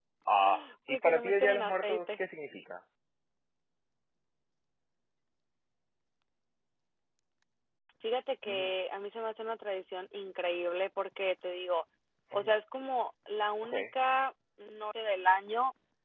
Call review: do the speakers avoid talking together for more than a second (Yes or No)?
No